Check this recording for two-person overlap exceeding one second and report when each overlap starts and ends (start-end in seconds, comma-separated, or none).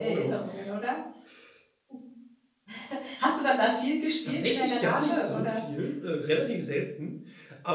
4.2-5.6